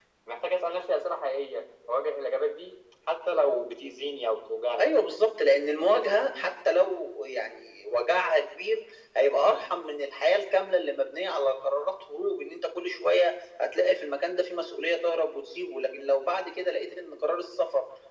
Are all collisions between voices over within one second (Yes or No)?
Yes